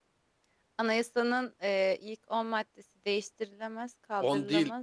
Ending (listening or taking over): taking over